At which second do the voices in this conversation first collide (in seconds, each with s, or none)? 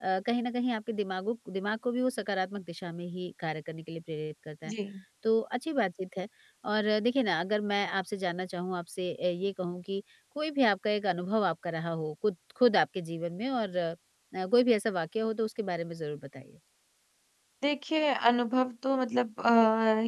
none